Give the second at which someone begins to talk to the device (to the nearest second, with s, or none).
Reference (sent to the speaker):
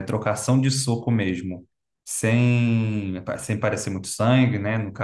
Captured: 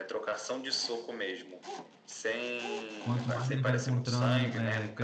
3 s